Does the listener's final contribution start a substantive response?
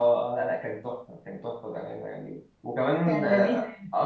No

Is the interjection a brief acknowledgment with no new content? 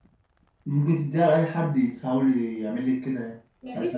No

